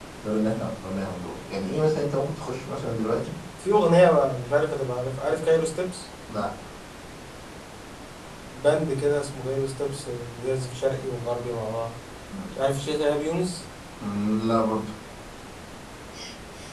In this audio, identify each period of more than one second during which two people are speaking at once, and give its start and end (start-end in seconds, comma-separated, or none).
none